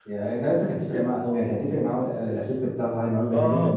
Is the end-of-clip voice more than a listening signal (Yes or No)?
Yes